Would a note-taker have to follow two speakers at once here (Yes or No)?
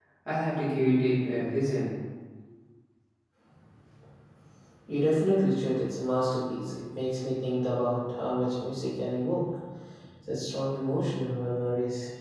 No